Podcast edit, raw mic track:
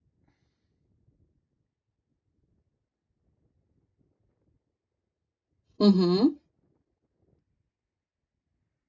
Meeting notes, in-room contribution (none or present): present